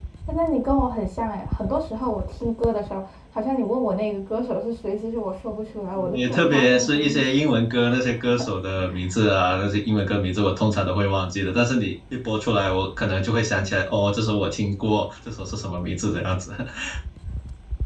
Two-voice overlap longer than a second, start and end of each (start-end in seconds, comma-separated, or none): 6.1-7.5